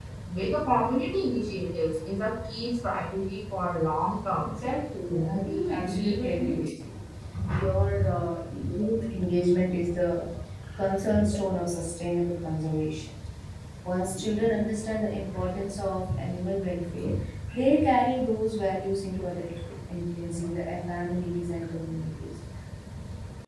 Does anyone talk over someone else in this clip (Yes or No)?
Yes